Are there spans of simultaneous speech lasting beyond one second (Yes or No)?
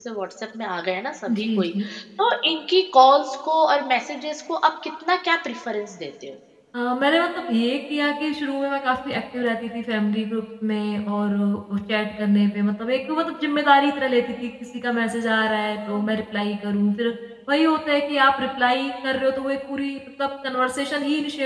No